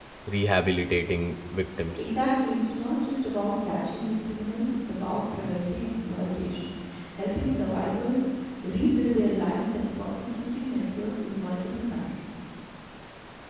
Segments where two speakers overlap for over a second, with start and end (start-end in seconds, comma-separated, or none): none